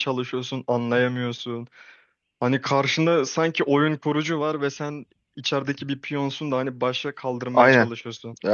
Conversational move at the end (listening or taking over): taking over